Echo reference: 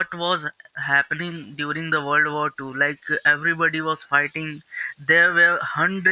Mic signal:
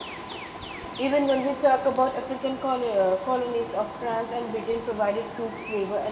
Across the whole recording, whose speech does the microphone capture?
user only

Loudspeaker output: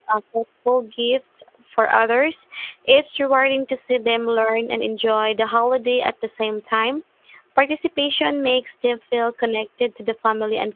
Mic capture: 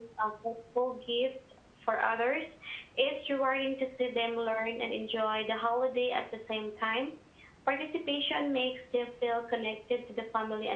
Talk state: echo only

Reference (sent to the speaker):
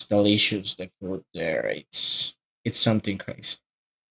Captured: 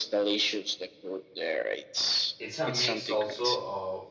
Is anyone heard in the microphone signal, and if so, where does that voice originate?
both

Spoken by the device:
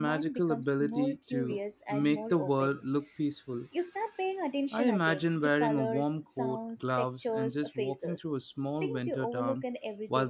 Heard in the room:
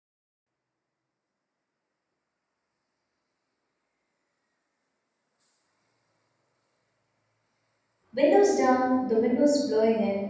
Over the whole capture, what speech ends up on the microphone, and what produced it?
user only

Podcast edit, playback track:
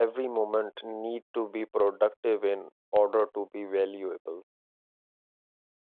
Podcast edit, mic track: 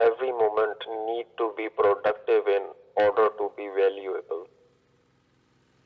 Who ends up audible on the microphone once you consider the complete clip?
echo only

